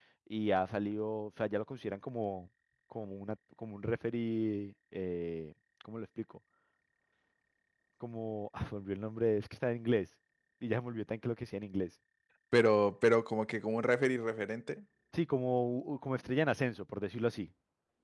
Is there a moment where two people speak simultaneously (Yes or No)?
No